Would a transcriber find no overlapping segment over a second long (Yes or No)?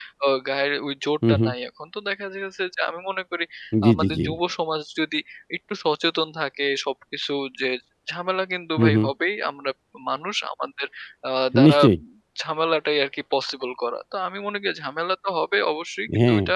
Yes